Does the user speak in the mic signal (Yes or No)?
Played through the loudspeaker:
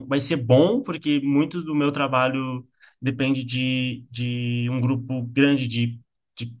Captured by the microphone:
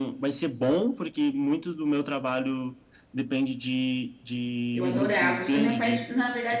Yes